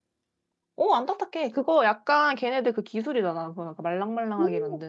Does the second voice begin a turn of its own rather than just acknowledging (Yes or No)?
Yes